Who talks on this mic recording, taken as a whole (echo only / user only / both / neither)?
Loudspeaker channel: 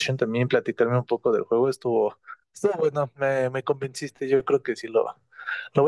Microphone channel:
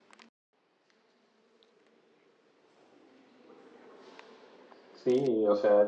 user only